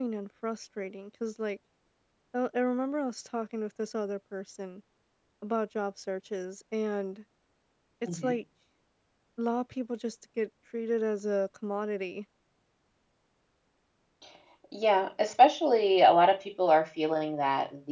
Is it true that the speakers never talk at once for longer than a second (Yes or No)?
Yes